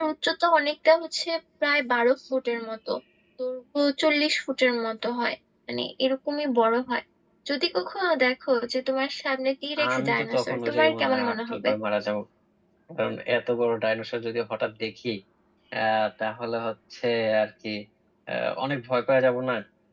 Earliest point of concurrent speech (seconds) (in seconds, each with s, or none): 9.8 s